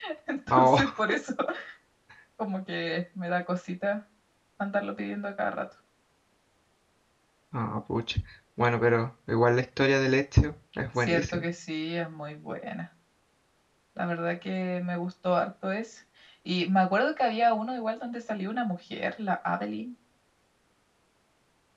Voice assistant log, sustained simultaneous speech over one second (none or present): none